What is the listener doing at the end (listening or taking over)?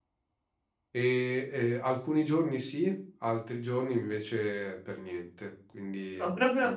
taking over